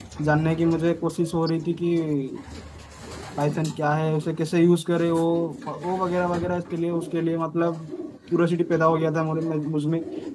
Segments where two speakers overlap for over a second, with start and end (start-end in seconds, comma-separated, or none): none